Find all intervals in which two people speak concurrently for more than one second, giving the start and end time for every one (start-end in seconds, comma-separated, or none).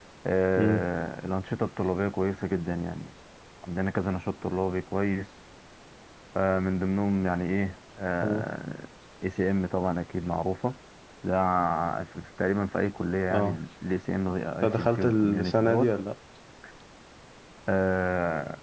14.6-15.9